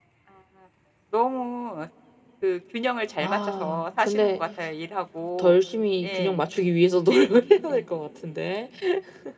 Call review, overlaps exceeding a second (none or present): present